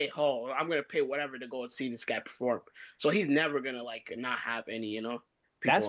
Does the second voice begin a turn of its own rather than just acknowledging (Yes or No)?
Yes